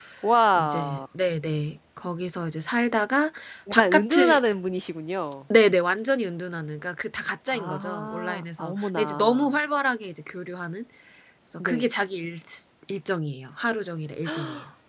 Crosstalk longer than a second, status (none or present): present